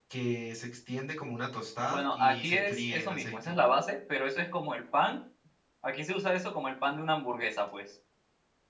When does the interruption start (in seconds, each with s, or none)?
1.9 s